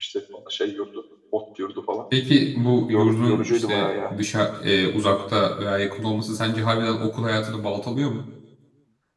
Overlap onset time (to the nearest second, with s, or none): 3 s